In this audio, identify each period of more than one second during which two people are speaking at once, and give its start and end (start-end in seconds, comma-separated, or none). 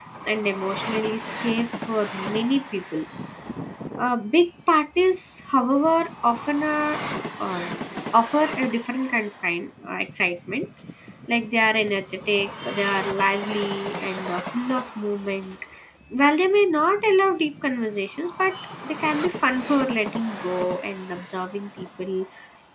none